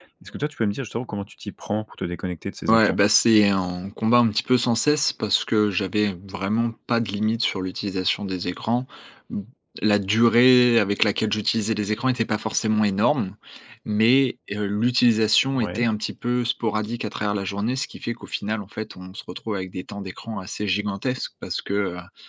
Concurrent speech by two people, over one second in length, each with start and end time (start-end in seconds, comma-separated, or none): none